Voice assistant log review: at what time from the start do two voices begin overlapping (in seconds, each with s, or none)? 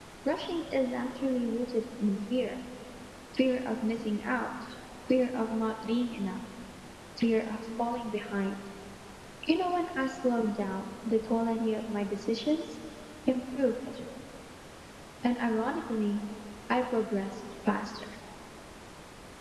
none